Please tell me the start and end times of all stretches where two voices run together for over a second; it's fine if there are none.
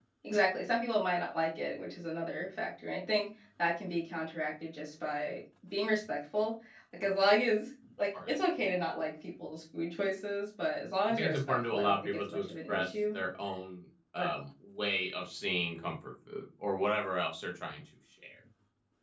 11.1-13.2

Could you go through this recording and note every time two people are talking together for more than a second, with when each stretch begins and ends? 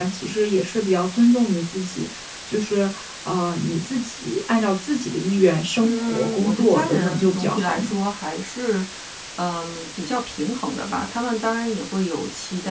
5.8-8.0

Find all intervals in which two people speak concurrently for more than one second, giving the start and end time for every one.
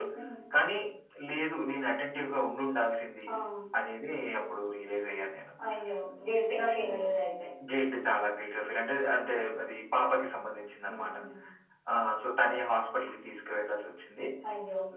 none

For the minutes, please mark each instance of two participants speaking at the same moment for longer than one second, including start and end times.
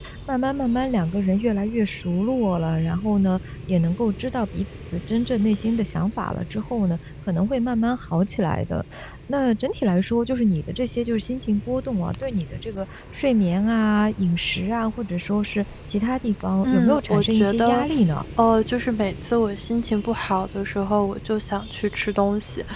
16.6-17.9

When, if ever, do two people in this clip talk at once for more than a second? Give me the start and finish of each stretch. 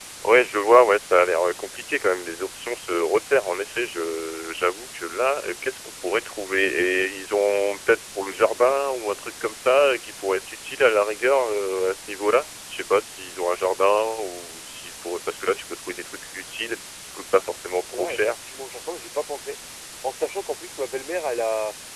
none

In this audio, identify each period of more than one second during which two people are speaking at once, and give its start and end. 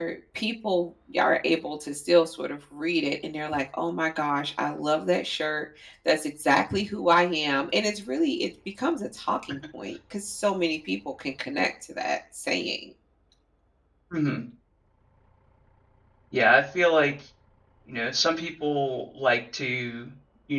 none

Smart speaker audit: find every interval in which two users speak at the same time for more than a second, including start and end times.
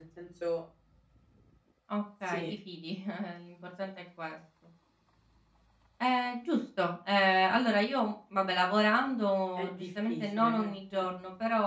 9.6-11.0

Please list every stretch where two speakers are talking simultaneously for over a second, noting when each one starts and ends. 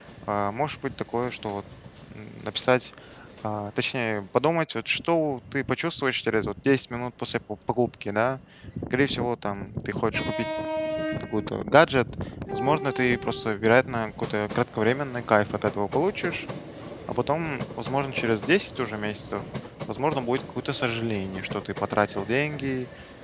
none

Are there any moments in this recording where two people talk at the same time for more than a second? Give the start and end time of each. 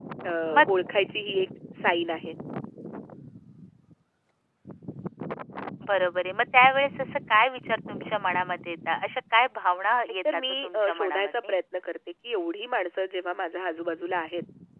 10.3-11.5

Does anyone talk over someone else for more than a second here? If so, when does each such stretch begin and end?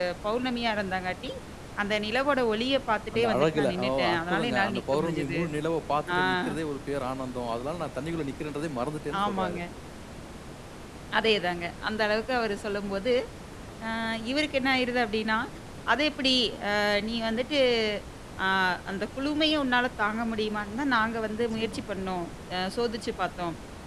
3.1-5.4

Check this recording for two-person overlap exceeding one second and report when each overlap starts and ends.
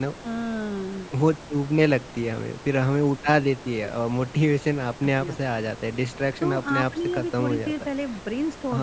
6.4-7.7

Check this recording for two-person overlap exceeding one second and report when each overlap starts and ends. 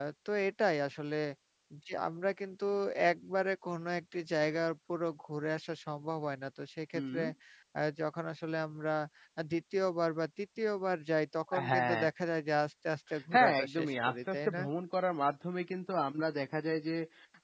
13.3-14.6

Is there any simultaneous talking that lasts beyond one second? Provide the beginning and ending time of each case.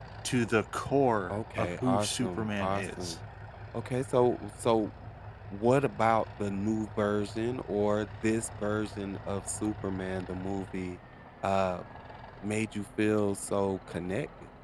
1.3-3.2

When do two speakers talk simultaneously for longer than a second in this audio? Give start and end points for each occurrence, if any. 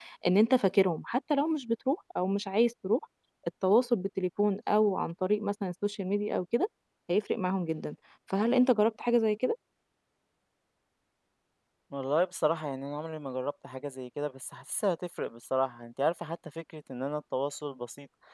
none

